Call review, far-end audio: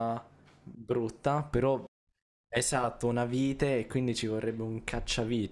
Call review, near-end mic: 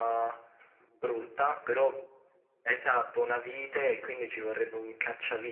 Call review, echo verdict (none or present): present